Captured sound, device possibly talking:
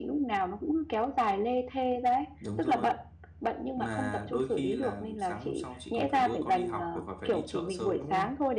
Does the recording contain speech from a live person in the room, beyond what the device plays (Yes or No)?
No